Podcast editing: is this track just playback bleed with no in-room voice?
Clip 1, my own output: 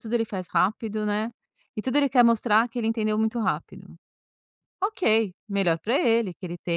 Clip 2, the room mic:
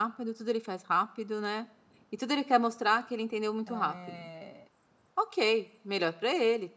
No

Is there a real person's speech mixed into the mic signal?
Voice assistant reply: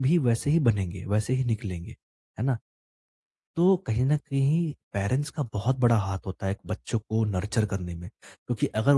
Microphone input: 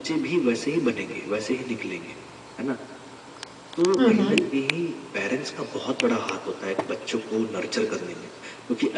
Yes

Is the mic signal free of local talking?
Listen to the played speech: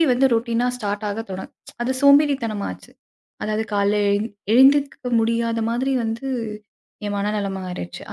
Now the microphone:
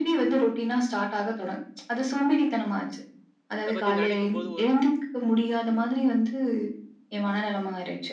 No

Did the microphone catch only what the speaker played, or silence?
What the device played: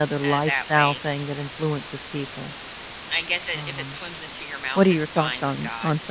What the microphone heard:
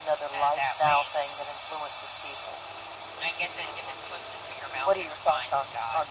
Yes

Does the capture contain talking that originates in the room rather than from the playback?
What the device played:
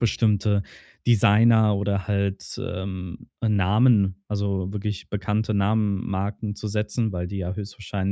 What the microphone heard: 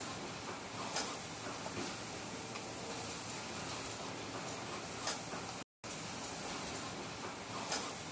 No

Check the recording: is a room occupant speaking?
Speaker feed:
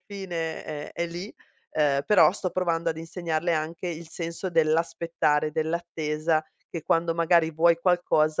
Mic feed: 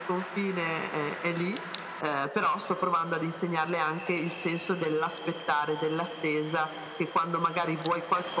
No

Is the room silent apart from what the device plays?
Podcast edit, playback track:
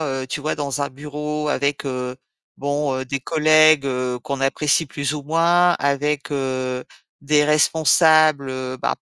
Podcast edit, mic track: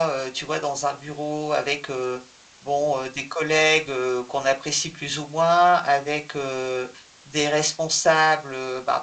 Yes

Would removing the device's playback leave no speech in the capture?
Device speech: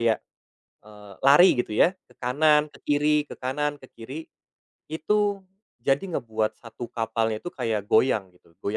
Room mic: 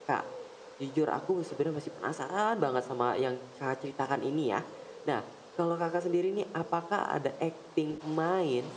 No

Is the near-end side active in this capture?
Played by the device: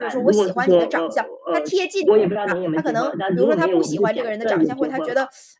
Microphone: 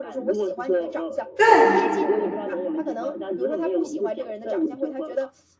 Yes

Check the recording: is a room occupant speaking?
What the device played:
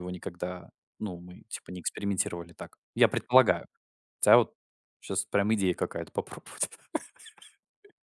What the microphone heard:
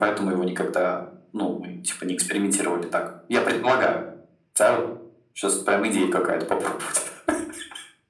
No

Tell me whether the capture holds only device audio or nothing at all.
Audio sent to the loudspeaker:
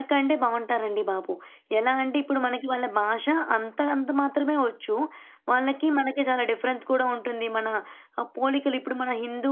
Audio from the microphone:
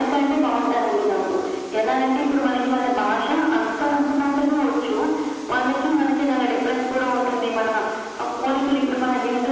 Yes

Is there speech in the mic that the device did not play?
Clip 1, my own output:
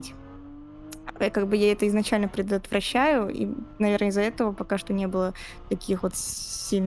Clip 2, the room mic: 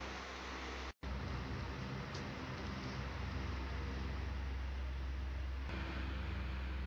No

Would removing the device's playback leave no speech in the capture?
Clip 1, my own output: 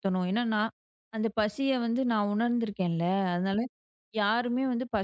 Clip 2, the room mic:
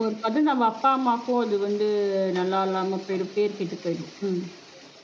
No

